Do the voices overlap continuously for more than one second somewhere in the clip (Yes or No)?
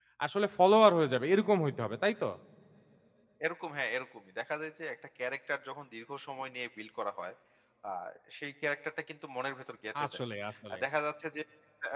No